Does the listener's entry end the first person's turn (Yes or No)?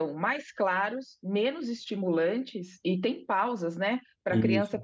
No